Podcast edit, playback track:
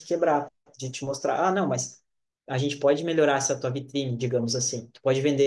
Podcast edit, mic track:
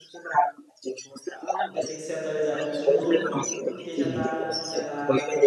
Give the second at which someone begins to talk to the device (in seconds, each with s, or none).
1.7 s